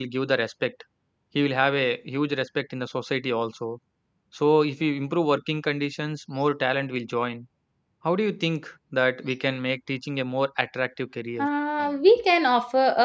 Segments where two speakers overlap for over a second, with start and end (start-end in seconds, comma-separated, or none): none